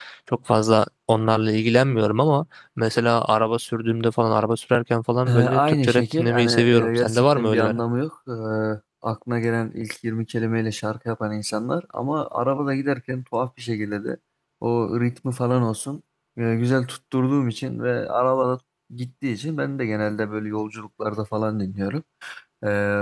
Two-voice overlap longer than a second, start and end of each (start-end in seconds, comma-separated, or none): 5.3-7.8